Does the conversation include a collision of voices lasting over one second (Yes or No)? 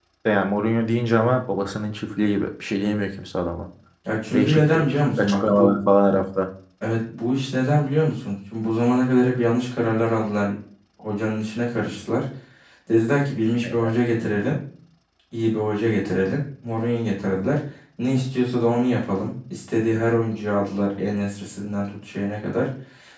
Yes